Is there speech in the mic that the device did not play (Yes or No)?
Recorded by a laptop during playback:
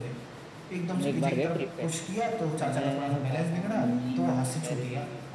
Yes